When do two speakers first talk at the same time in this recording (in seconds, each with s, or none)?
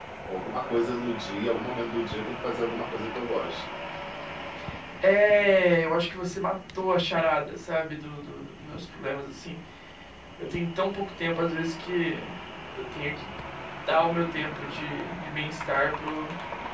none